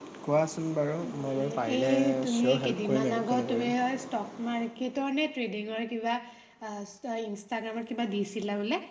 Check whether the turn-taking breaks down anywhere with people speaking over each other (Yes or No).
Yes